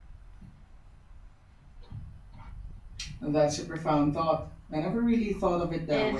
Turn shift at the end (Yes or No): Yes